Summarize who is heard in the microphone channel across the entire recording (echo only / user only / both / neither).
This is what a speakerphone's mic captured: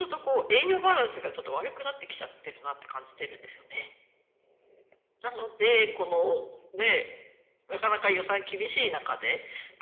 echo only